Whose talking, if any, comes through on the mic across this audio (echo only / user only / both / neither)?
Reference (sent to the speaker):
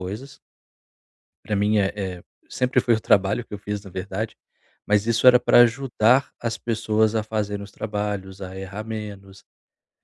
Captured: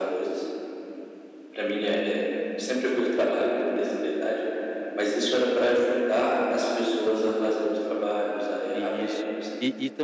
both